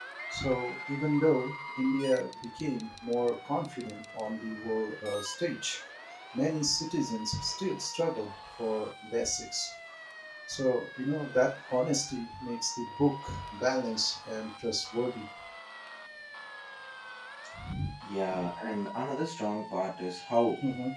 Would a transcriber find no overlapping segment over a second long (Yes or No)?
Yes